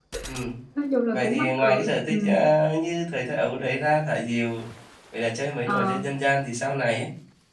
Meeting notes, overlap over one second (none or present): present